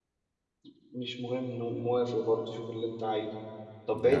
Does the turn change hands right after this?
No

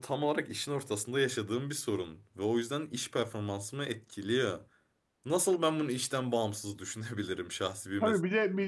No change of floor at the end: No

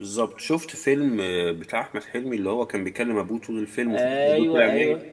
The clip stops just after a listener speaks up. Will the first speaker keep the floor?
No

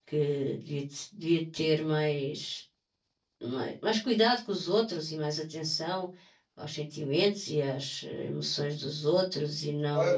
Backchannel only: No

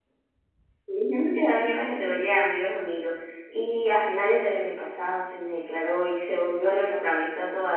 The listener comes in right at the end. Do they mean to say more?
No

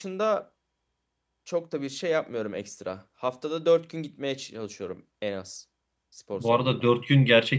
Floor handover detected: Yes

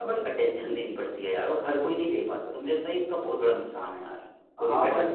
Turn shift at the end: Yes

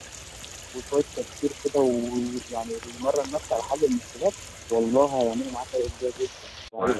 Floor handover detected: Yes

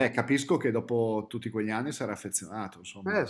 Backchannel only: No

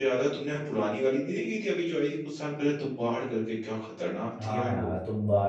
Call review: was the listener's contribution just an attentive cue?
No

